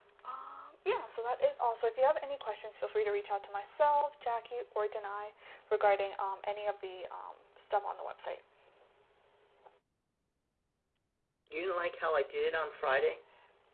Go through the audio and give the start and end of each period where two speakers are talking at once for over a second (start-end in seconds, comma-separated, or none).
none